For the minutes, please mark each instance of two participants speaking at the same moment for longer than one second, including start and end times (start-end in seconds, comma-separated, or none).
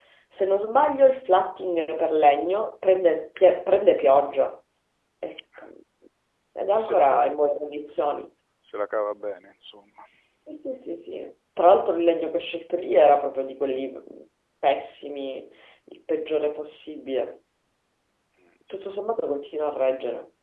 none